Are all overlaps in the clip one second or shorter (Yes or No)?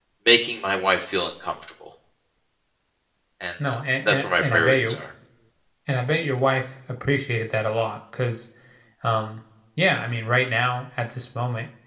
No